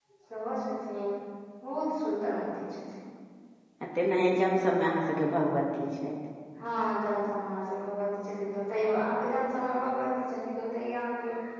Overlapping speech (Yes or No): No